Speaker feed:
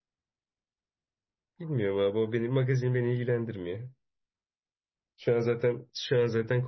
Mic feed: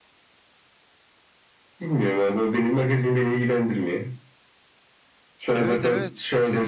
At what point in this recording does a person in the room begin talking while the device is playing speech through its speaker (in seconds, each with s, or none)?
5.5 s